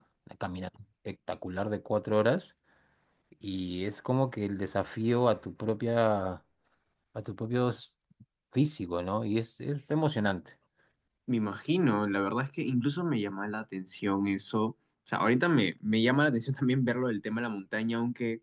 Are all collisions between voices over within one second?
Yes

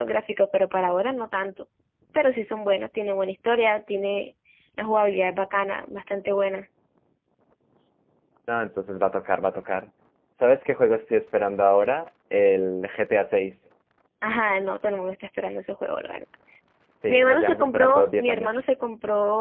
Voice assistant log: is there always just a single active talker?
No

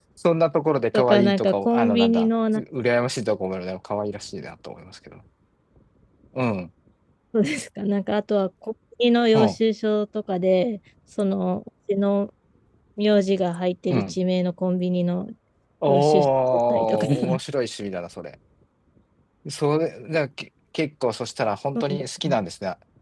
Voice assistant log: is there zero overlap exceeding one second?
No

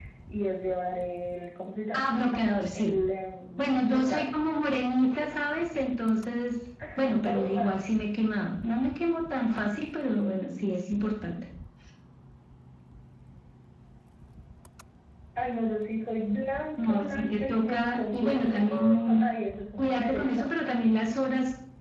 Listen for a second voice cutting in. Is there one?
Yes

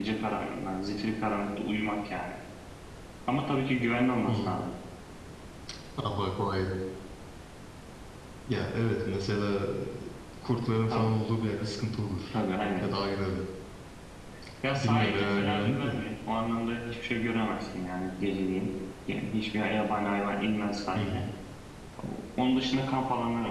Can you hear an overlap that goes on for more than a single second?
Yes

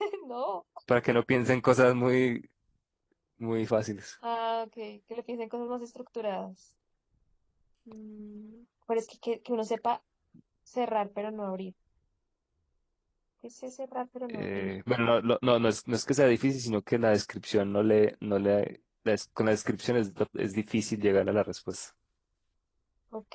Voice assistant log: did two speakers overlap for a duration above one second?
No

